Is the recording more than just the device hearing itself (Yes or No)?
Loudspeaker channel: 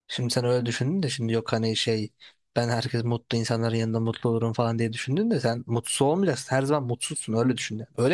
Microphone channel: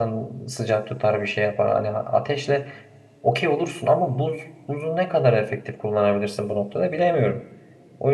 Yes